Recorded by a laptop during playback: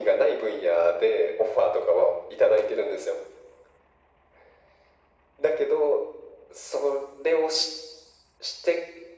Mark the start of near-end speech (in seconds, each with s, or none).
none